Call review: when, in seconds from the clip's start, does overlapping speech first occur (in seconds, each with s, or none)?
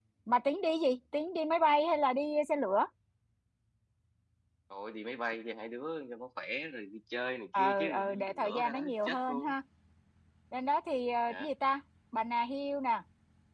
7.6 s